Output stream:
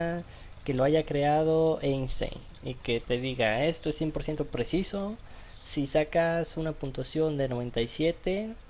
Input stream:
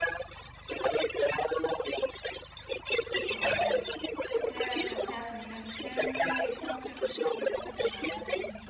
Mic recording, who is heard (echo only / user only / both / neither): both